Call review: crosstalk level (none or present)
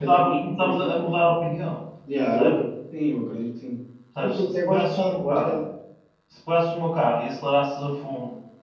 present